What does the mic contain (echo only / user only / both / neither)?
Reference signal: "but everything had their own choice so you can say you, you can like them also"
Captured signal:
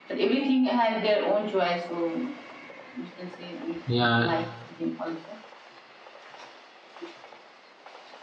both